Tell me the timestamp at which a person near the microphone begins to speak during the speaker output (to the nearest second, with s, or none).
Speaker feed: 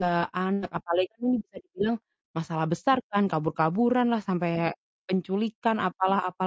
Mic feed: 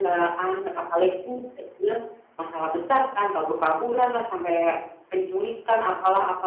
none